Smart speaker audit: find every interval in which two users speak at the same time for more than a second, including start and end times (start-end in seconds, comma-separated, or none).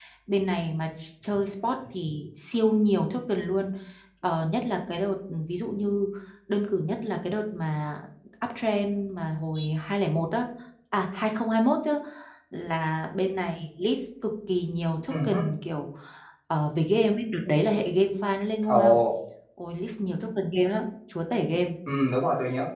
none